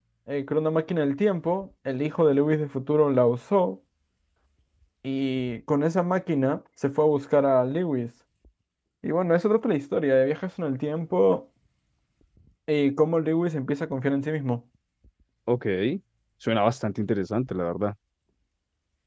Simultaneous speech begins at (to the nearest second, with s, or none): none